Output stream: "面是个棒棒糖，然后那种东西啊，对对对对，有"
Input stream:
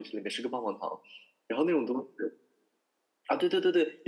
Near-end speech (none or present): none